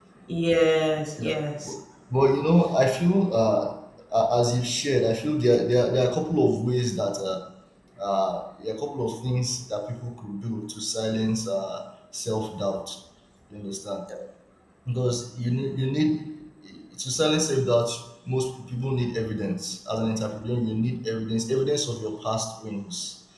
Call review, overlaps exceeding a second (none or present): none